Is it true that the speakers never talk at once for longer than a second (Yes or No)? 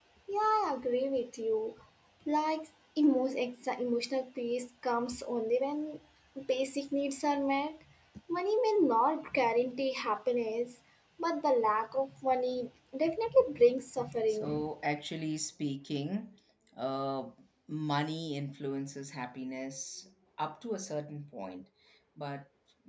Yes